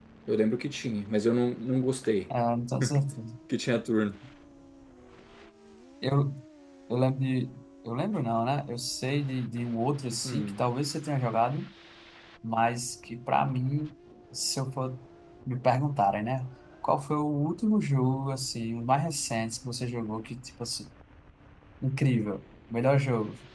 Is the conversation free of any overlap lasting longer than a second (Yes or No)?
Yes